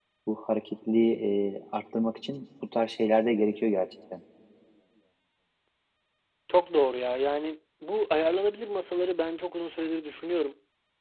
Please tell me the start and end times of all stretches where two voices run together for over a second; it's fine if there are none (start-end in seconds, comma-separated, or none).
none